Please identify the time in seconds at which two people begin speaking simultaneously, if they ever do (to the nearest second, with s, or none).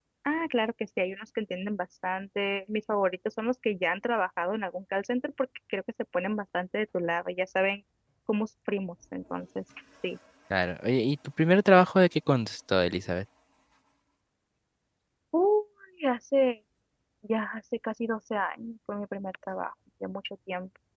none